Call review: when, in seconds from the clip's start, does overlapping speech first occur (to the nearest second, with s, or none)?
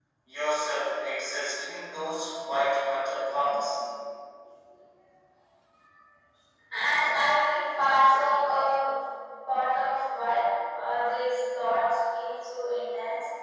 none